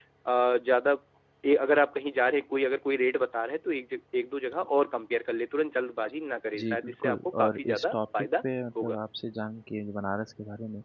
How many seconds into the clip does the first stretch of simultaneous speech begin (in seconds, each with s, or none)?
6.5 s